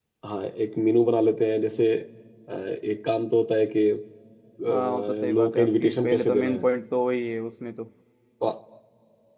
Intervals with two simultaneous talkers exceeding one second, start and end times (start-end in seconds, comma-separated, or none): 4.7-6.6